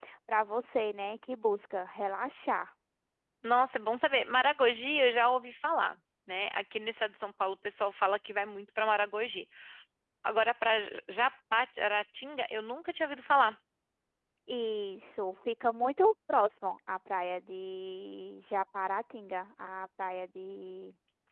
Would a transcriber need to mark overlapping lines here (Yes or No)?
No